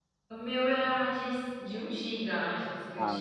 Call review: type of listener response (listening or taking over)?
taking over